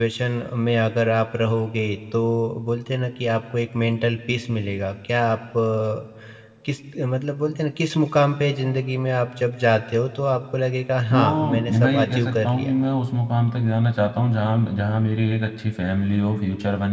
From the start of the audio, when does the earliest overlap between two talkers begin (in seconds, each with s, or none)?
11.1 s